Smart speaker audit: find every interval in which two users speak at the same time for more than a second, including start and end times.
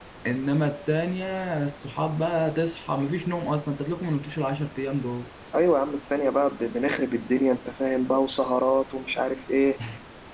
none

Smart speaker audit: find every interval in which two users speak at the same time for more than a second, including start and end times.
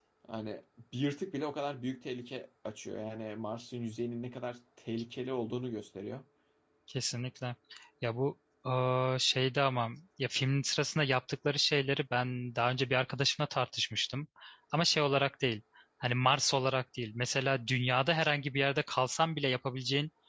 none

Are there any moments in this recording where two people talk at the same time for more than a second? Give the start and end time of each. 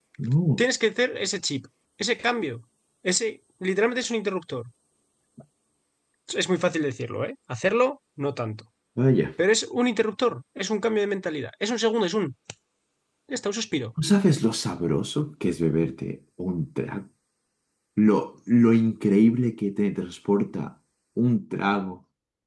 none

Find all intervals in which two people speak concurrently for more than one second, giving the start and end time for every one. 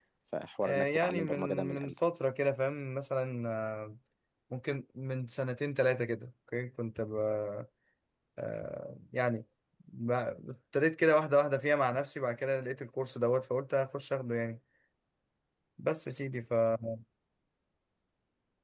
0.6-1.9

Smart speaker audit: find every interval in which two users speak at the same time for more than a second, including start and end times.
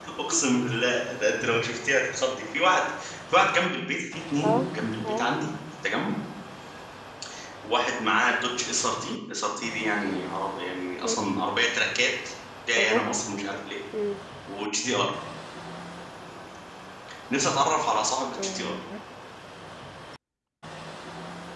none

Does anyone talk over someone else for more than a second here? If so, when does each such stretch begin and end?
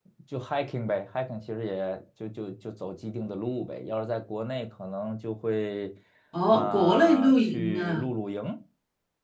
6.5-8.0

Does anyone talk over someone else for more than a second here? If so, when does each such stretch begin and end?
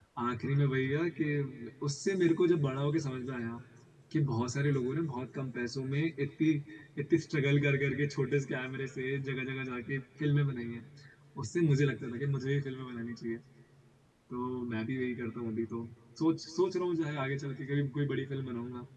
none

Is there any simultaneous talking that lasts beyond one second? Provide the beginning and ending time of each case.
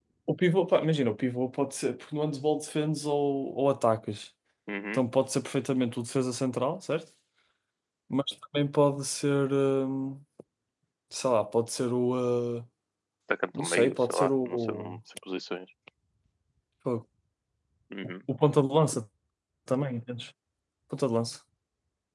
13.6-14.9

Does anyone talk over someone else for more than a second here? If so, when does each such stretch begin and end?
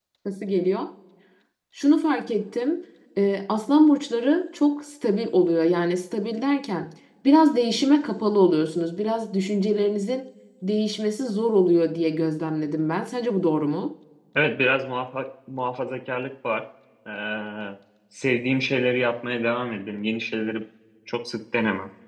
none

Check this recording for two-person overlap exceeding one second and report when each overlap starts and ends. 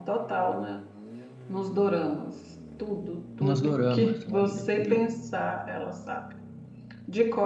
3.4-5.1

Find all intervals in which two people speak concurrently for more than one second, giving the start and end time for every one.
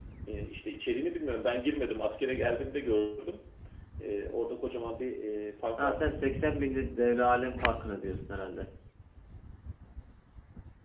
none

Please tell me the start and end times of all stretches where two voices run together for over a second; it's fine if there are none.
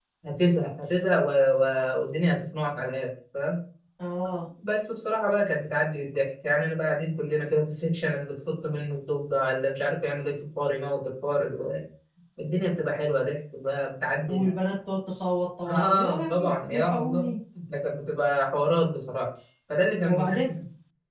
15.8-17.3

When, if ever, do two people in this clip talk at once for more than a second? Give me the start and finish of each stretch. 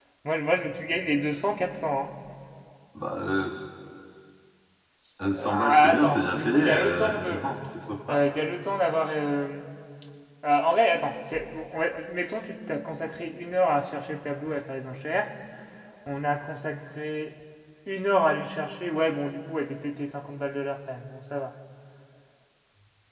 5.5-7.4

